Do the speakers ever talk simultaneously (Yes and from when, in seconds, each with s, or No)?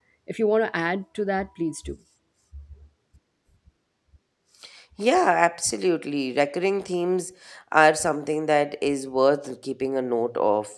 No